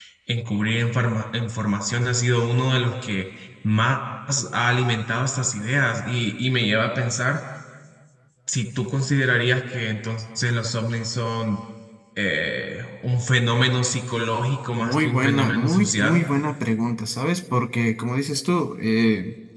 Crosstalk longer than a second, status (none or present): present